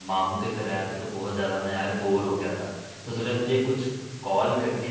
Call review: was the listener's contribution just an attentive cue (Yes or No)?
Yes